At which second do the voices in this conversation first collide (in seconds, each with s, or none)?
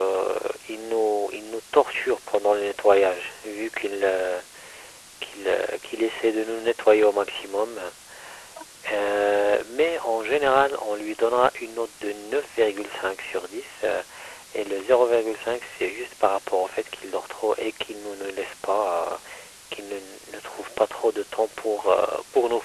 none